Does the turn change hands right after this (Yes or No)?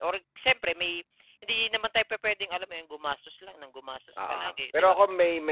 Yes